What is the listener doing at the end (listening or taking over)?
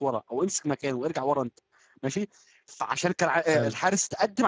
listening